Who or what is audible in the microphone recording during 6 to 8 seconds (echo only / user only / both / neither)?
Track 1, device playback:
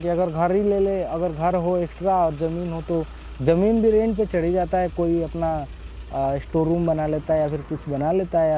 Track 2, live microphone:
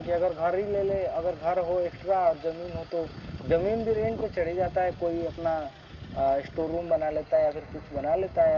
echo only